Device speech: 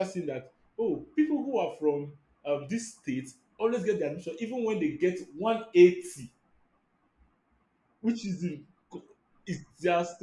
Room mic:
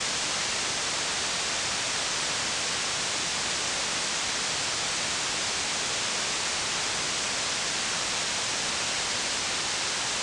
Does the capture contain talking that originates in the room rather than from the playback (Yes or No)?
No